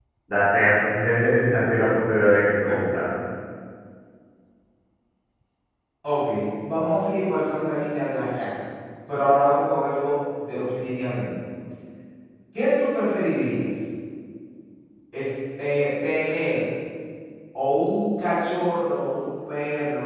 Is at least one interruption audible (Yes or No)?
No